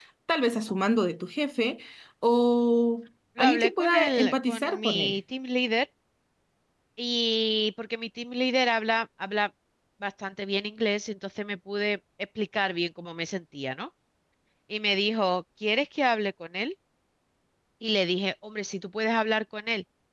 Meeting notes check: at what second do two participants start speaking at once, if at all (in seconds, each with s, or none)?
3.4 s